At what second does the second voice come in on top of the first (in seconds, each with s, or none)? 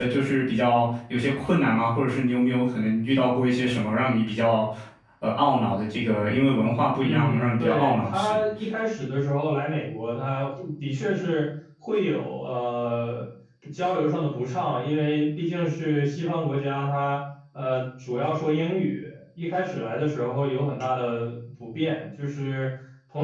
7.0 s